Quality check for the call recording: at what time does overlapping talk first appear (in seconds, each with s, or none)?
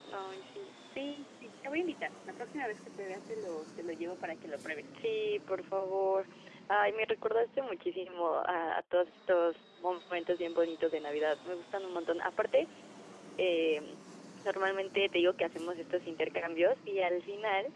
none